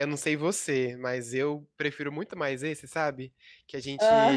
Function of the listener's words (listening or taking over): listening